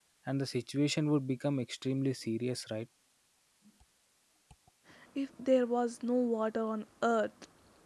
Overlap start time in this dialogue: none

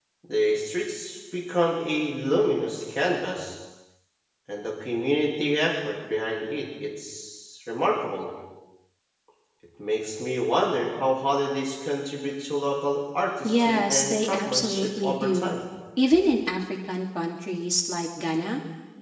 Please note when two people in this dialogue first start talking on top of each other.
13.4 s

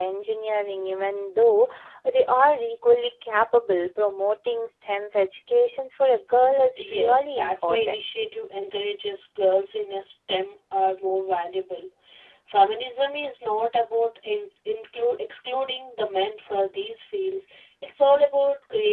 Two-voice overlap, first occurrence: 6.8 s

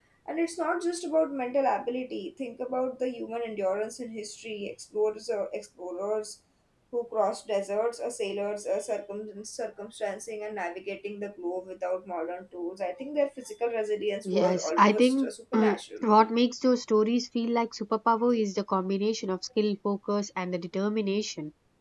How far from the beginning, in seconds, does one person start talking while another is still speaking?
14.2 s

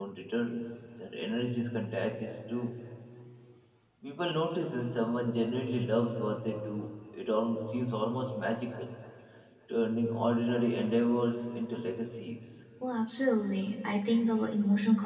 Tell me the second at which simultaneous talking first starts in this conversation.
none

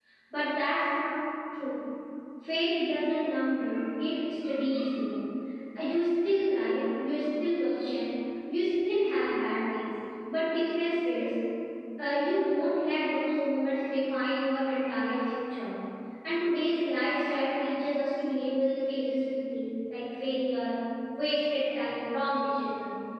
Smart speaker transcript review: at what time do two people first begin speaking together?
none

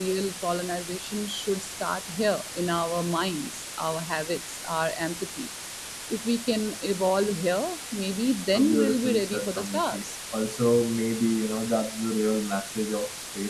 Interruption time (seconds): 8.5 s

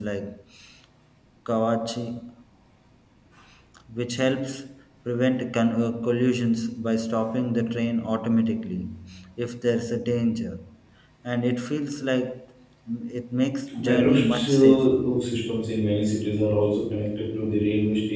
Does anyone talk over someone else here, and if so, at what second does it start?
13.8 s

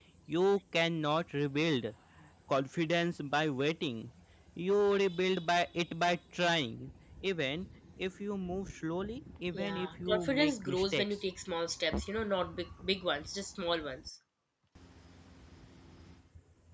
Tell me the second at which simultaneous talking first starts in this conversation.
9.5 s

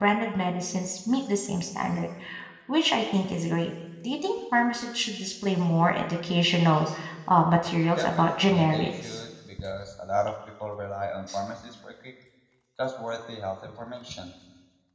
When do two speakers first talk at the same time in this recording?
8.0 s

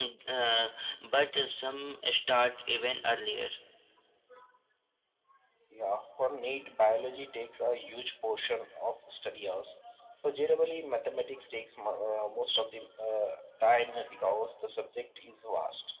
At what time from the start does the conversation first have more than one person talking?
none

